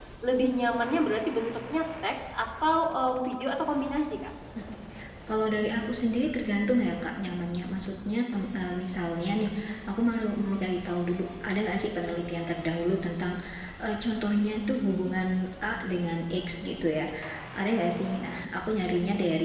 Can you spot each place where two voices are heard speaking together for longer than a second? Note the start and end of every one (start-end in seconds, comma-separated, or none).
none